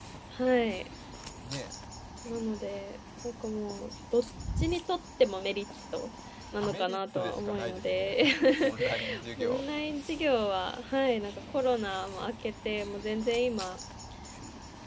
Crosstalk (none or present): present